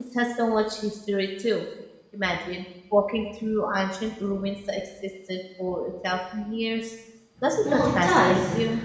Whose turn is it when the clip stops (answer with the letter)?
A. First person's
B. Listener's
B